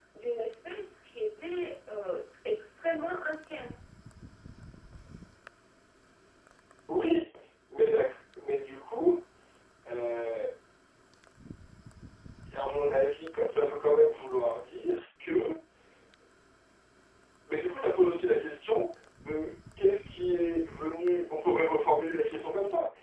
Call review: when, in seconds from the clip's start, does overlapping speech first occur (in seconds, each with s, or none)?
none